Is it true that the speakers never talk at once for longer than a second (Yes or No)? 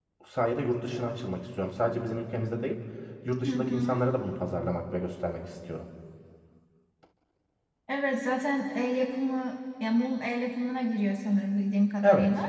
Yes